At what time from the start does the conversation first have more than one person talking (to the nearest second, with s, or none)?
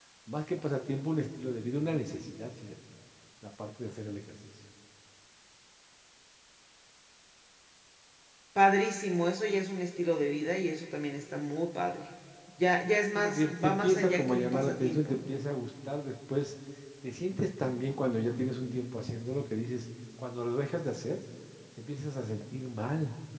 13 s